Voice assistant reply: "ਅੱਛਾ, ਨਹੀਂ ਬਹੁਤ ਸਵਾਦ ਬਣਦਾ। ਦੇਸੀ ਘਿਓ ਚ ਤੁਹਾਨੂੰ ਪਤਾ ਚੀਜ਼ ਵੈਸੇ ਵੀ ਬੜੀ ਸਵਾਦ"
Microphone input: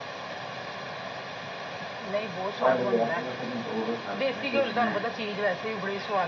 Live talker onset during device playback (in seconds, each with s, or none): 2.6 s